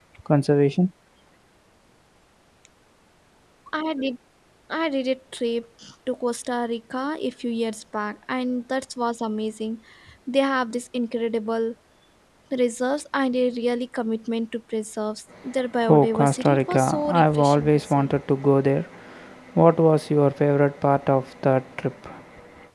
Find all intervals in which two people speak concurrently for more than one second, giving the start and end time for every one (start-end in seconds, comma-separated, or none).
15.9-18.2